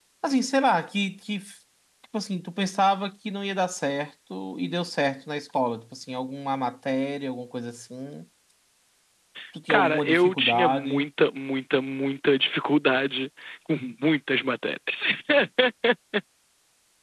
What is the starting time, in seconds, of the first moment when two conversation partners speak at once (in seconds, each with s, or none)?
9.7 s